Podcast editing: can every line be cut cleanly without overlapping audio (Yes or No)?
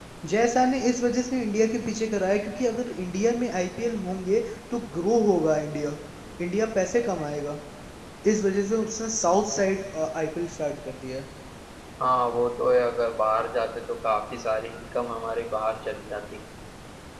Yes